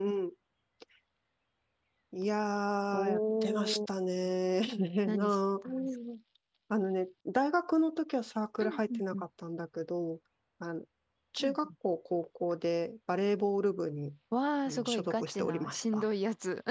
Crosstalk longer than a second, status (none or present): present